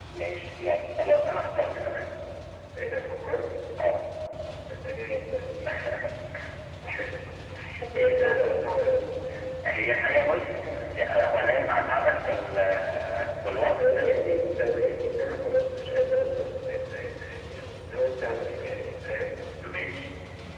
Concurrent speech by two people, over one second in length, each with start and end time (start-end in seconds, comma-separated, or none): none